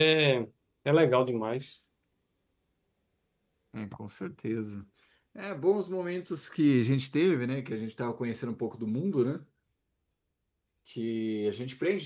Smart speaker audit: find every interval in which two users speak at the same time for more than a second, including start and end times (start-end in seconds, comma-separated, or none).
none